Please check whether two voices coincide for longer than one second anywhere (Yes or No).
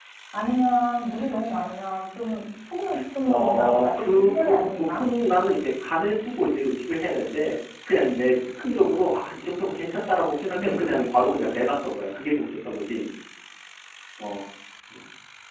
Yes